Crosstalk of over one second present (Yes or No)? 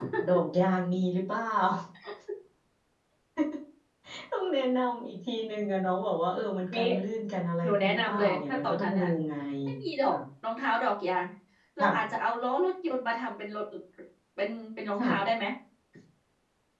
Yes